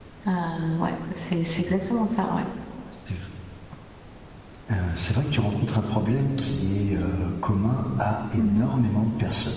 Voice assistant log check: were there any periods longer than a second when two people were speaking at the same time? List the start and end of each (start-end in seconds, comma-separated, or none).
none